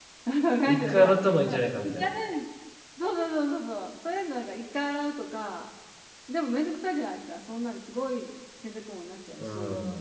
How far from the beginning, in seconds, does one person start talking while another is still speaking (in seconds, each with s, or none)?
0.6 s